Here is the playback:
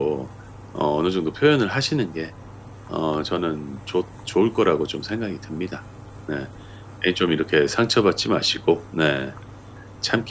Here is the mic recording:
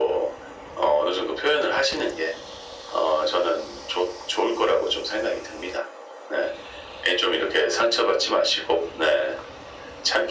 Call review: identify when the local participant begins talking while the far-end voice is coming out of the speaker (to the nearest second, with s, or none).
none